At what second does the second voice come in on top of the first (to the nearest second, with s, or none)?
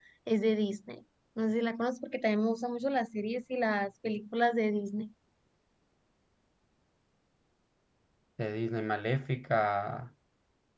none